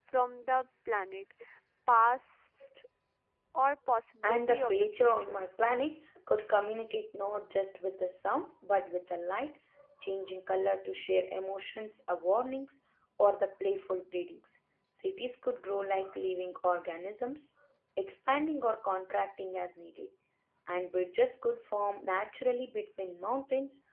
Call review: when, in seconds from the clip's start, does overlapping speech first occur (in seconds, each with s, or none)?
4.2 s